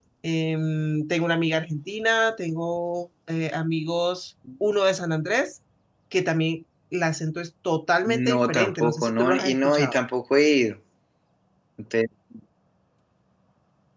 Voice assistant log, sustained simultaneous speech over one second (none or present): present